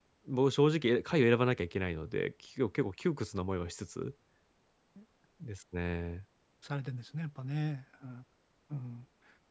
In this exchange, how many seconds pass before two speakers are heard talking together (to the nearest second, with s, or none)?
none